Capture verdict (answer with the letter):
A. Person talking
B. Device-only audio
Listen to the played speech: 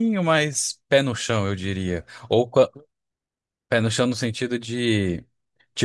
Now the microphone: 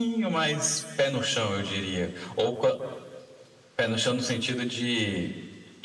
B